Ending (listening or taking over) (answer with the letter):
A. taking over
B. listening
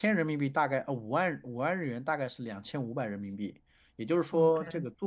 B